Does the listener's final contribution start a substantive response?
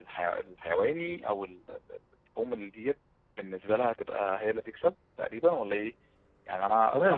Yes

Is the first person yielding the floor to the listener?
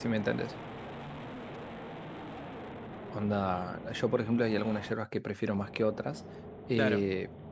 No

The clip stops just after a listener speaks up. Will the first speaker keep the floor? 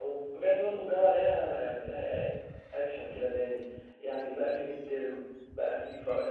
Yes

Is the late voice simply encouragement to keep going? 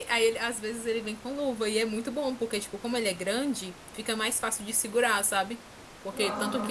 Yes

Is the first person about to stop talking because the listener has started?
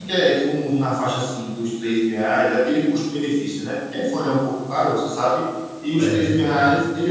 No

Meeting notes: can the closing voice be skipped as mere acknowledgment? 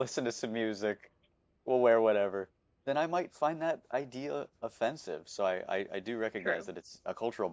Yes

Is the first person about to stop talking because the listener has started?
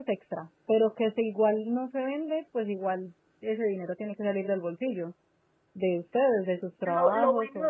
Yes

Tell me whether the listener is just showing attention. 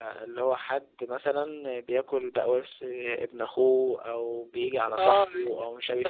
No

